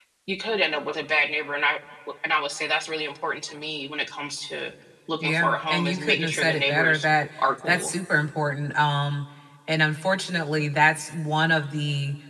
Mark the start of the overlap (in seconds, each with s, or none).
5.2 s